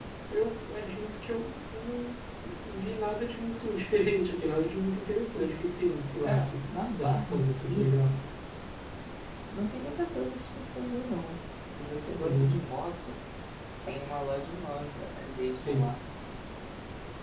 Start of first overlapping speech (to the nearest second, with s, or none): 6 s